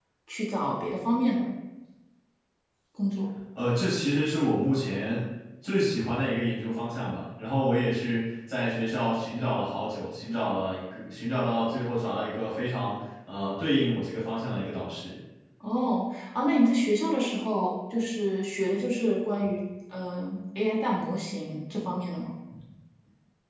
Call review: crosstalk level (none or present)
none